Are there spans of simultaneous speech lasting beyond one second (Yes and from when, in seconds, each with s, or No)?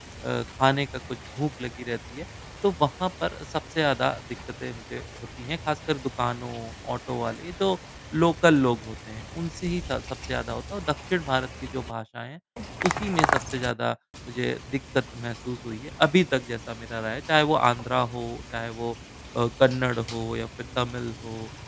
No